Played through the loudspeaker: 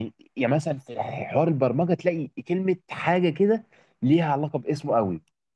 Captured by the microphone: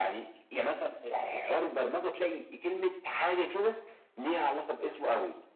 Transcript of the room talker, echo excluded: none

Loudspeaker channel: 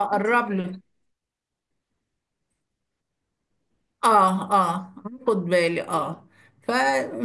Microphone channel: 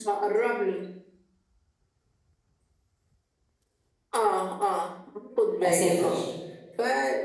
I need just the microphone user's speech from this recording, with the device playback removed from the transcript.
اسافر

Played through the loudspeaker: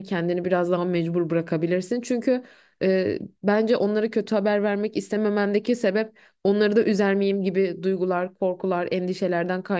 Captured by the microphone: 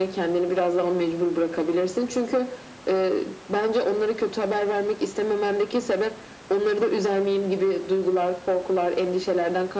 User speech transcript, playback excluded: none

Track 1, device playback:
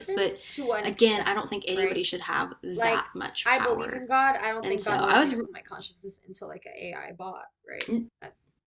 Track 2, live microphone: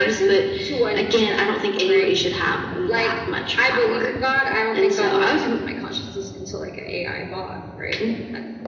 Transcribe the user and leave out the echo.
none

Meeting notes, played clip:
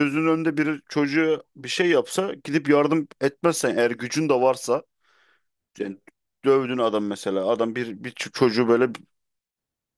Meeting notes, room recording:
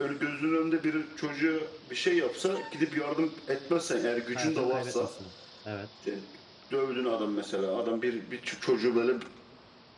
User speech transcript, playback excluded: Hayatını kaybetmesine. Evet.

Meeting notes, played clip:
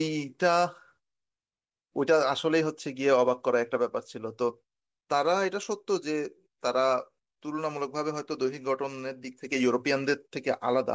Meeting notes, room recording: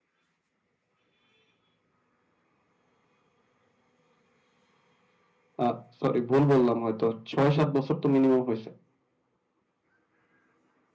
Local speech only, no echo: আহ সরি ভুল বললাম হয়তো ছয় সাত বছর তো মিনিমাম হয়েছে

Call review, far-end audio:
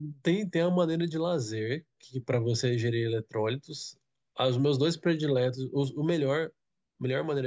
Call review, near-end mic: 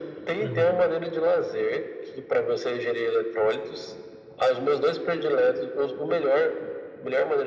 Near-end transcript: Uhum.

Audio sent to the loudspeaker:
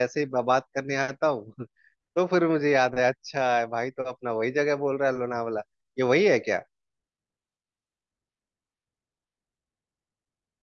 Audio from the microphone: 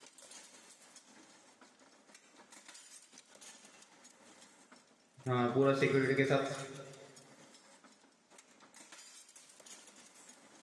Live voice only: हाँ पूरा सिक्योरिटी के साथ

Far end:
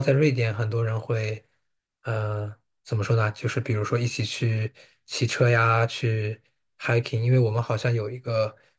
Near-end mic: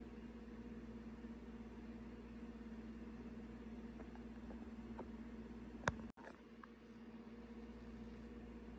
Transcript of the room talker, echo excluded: none

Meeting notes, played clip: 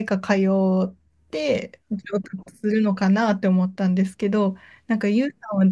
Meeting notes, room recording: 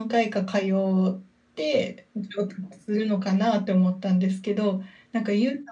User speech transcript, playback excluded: none

